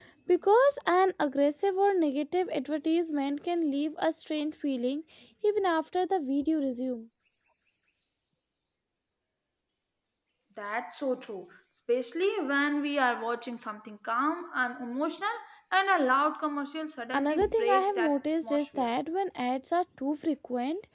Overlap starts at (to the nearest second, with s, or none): 17 s